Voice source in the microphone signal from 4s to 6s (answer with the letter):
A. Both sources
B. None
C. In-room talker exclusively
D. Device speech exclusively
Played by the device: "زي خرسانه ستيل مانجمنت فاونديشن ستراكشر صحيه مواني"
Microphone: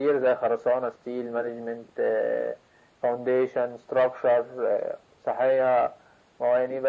D